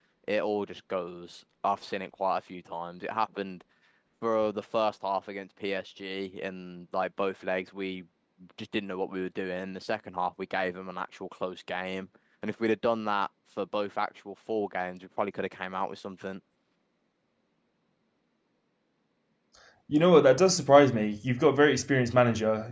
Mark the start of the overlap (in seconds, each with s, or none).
none